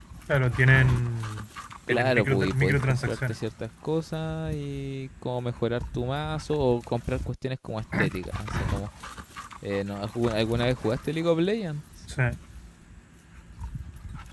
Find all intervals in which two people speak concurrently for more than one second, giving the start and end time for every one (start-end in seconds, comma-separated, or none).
1.9-3.4